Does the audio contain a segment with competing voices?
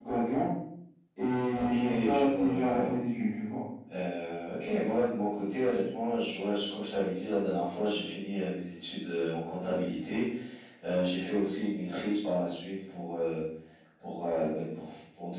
Yes, from 1.5 s

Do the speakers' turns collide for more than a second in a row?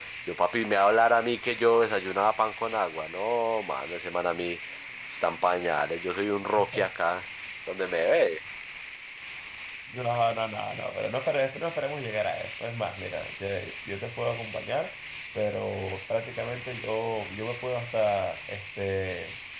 No

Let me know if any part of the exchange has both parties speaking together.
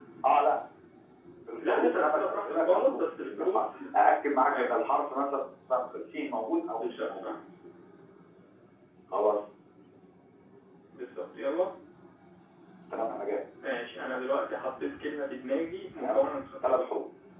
Yes, from 1.7 s

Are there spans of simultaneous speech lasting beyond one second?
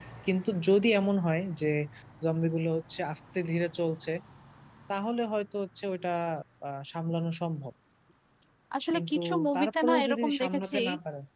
Yes, from 8.9 s

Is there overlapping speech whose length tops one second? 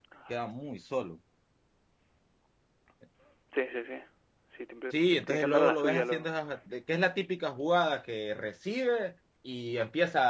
Yes, from 4.9 s

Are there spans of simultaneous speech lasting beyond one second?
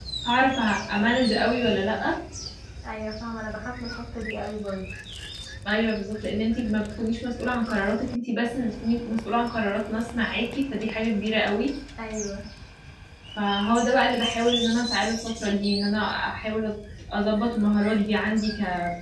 No

